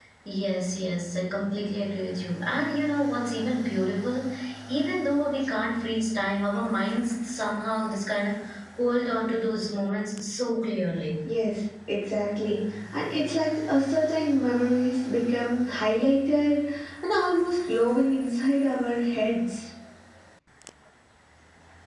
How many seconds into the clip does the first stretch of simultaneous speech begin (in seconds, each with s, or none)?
none